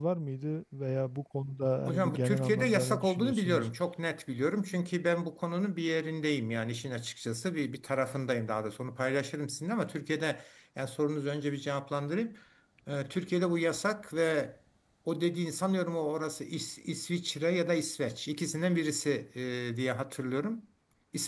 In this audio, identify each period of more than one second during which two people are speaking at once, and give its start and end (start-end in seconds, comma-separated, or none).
1.9-3.7